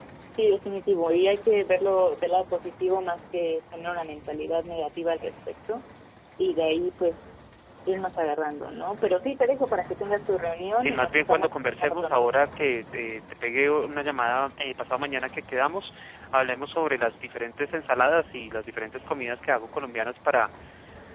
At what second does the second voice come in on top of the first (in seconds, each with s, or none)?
10.8 s